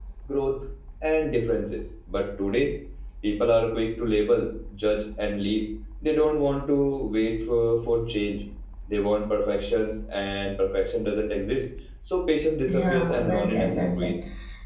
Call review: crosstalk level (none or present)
present